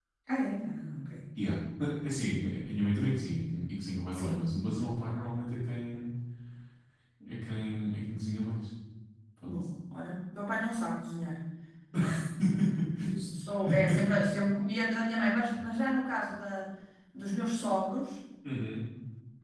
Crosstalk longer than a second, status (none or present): none